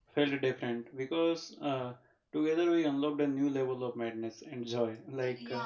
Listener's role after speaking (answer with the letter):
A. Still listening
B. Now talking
A